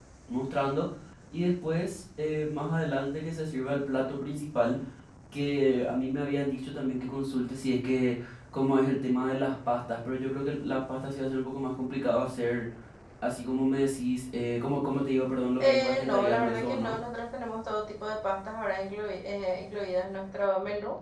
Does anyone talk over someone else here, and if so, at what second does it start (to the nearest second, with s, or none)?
16 s